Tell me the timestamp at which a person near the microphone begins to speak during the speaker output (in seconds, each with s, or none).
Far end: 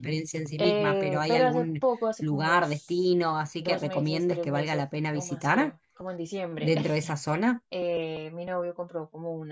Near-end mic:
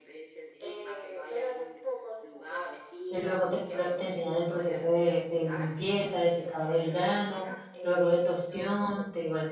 3.1 s